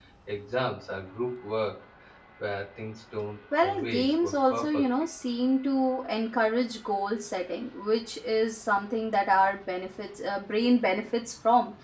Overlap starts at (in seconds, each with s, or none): 3.5 s